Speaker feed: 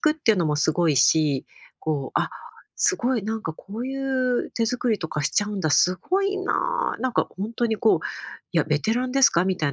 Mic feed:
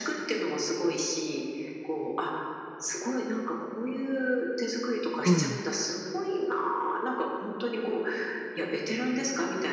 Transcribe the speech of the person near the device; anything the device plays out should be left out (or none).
うん、